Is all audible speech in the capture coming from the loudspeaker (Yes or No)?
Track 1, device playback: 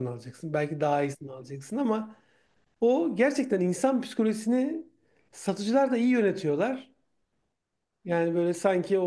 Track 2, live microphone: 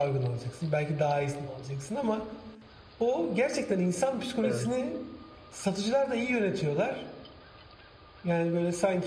No